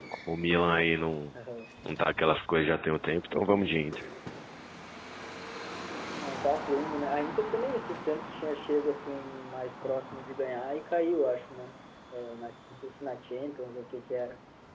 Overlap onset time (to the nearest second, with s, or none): none